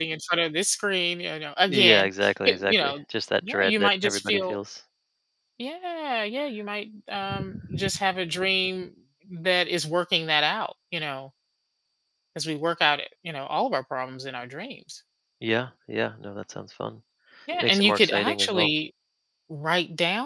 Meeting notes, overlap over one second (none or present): present